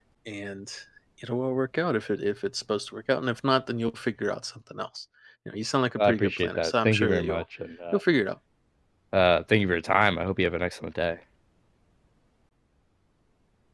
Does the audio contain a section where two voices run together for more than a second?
Yes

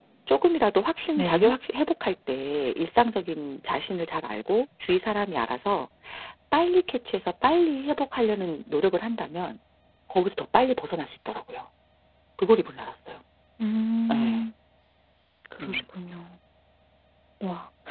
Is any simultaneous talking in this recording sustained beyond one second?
No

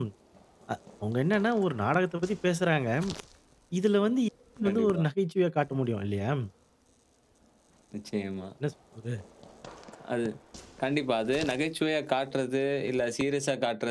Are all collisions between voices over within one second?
Yes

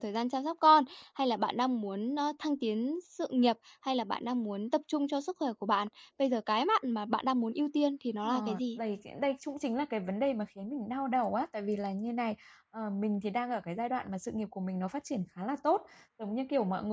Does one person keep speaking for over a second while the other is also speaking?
No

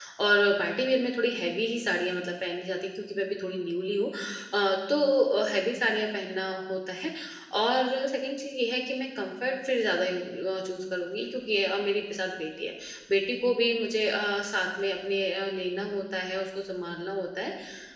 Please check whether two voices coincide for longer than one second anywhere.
No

